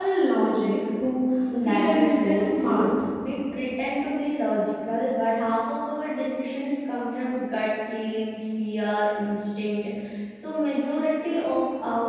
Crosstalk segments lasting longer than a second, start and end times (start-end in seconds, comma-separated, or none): 1.6-2.9